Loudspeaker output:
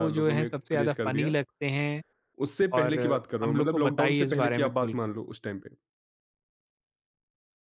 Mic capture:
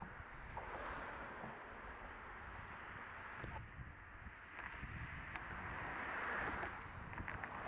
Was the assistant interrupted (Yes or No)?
No